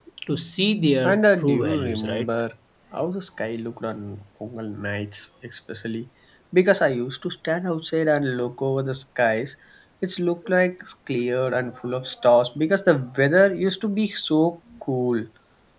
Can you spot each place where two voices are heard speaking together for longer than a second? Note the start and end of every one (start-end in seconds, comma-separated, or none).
1.0-2.2